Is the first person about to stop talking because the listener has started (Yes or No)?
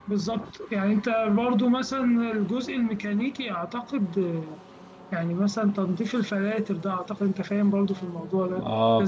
Yes